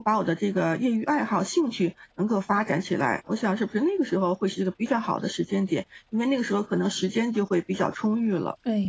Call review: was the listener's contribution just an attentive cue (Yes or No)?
No